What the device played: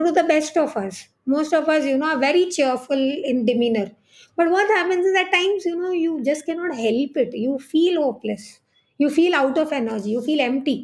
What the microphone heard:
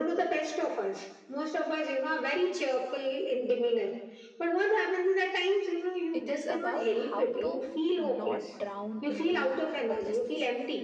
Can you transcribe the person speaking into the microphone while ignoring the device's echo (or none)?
It is about how to not drown into hopelessness,